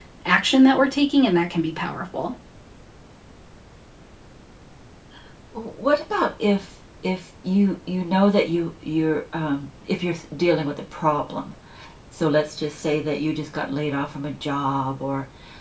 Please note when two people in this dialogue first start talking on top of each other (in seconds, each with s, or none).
none